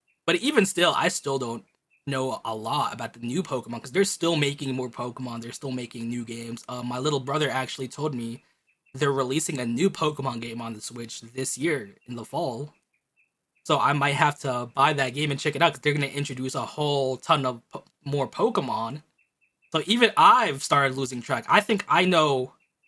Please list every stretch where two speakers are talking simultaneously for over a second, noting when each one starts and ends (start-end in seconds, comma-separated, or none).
none